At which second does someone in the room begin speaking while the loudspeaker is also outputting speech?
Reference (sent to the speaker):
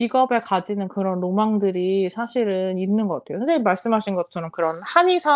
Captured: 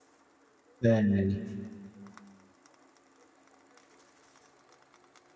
0.8 s

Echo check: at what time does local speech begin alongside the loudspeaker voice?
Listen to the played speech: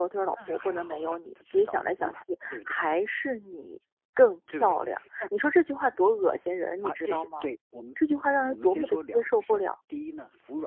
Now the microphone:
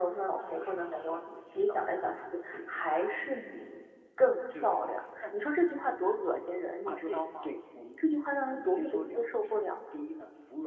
none

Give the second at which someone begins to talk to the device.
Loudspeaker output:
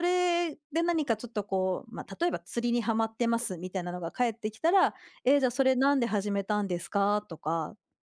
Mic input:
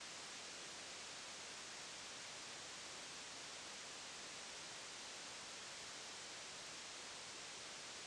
none

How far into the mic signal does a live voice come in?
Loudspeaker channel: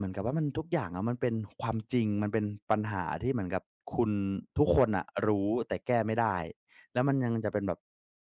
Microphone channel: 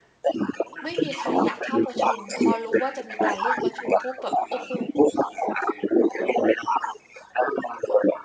0.8 s

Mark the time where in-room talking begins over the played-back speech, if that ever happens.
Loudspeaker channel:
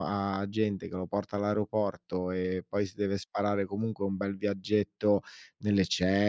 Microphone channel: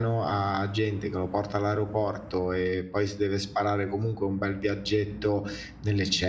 none

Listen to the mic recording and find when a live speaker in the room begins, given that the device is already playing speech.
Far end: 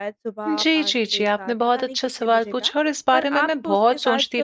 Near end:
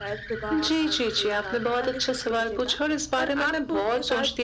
none

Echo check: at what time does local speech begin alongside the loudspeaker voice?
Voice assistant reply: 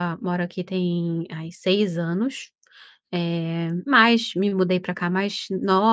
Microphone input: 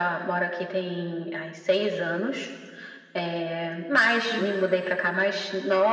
4.3 s

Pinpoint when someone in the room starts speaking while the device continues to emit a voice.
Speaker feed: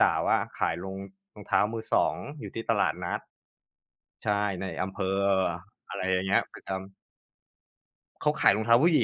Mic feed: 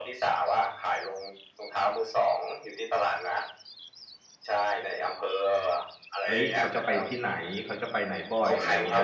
6.2 s

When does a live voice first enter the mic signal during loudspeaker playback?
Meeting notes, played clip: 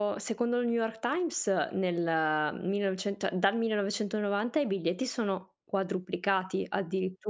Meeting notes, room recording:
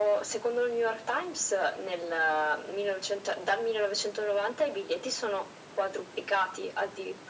none

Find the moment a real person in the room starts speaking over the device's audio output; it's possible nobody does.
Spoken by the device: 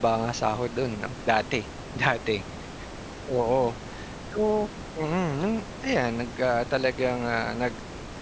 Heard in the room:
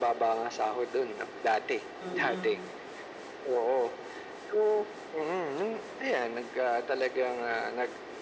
2.0 s

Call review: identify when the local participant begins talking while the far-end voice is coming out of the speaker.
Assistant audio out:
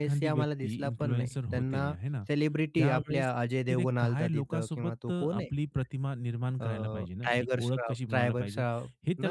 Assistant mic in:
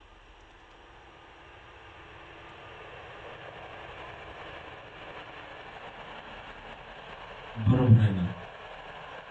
7.5 s

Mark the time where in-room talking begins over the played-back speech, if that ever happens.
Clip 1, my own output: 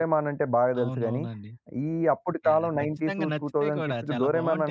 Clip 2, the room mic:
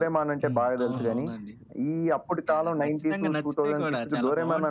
0.4 s

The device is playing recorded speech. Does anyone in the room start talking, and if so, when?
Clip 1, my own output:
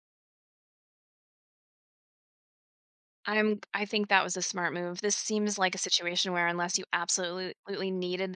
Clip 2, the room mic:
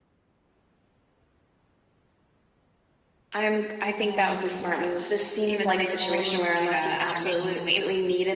3.9 s

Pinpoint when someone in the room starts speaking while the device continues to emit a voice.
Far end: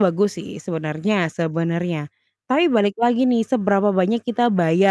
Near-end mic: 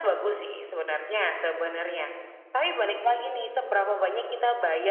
none

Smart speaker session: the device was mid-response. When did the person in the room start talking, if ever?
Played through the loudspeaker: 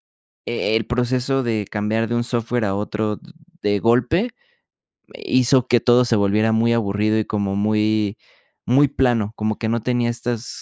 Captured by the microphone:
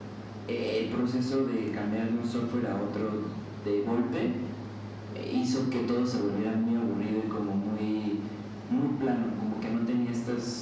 none

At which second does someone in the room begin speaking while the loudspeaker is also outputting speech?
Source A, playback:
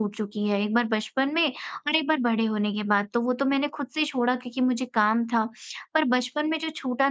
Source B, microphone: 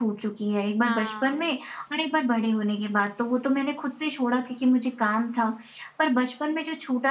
0.8 s

